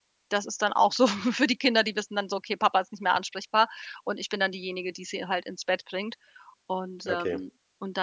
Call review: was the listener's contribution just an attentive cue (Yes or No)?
Yes